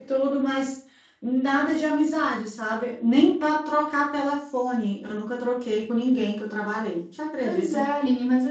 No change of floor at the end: No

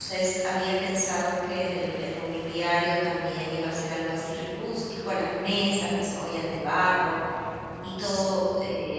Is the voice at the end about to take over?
No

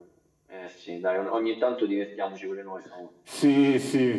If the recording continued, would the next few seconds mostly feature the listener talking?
Yes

